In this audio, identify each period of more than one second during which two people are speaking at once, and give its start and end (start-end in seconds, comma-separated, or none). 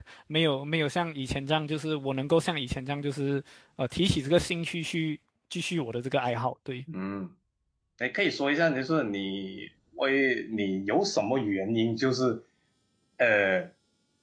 none